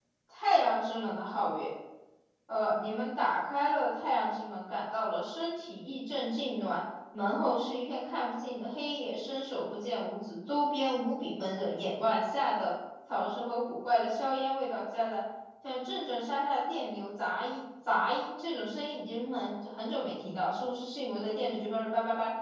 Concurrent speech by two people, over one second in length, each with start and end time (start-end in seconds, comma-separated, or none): none